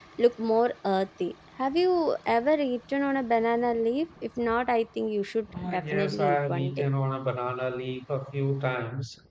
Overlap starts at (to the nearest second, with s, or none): 6 s